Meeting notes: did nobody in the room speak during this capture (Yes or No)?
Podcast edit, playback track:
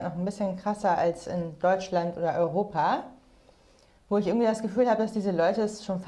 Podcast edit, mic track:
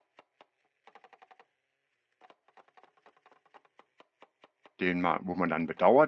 No